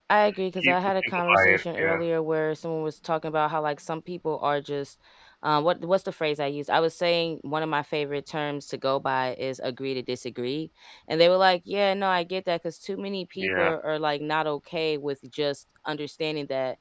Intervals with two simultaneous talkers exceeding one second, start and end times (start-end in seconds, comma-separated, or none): 0.6-2.0